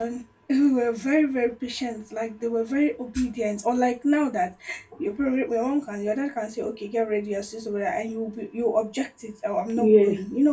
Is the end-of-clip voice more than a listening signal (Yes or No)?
No